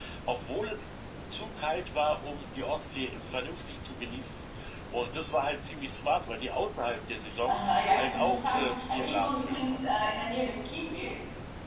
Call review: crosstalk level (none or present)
present